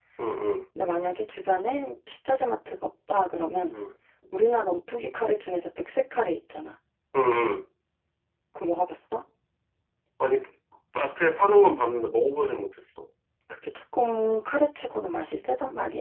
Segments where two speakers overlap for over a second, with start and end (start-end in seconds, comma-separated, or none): none